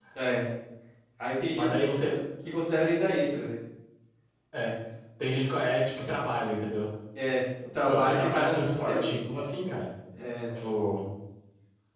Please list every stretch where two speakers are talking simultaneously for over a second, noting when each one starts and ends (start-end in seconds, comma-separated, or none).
7.8-9.1